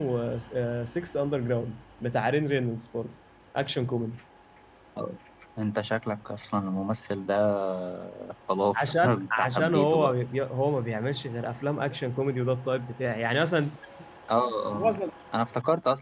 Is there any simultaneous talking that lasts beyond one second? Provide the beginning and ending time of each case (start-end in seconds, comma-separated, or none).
8.7-10.2